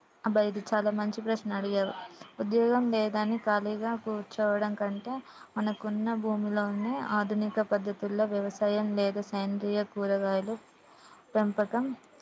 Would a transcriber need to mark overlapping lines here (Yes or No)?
No